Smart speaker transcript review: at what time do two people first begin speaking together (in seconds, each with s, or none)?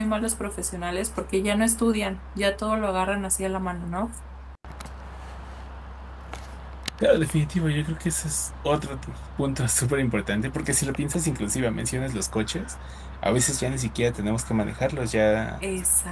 none